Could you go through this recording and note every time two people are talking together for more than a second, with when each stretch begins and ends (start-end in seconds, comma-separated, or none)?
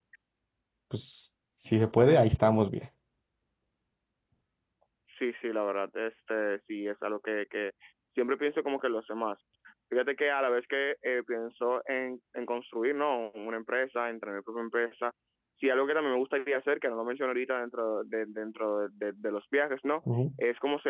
none